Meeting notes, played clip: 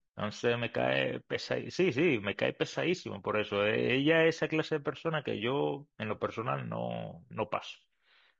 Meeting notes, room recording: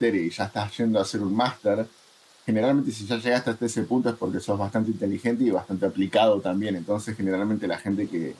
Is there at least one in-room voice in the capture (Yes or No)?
Yes